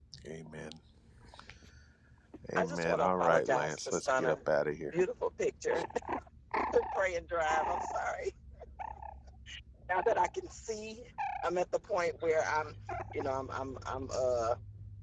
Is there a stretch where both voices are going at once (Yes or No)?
Yes